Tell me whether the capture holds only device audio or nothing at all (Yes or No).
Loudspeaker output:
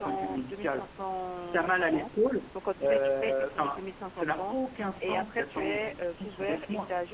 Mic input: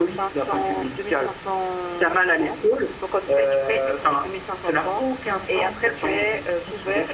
Yes